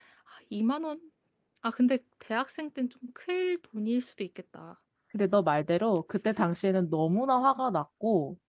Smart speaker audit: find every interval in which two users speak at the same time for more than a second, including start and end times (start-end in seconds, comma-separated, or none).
none